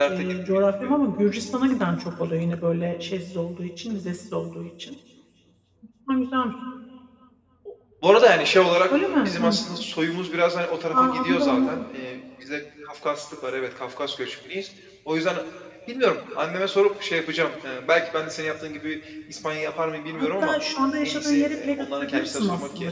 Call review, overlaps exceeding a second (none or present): present